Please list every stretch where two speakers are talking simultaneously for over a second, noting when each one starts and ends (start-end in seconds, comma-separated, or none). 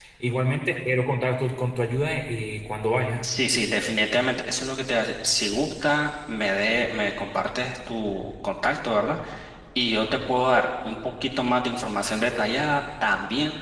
none